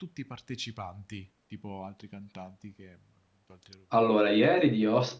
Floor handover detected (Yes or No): Yes